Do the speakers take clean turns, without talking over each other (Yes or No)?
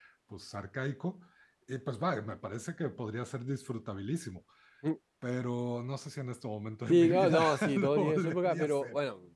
No